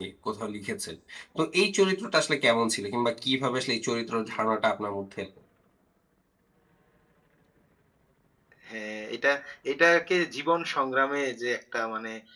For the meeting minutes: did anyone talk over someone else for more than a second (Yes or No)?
No